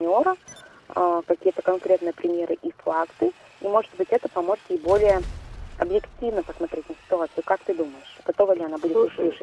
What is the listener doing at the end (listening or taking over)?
taking over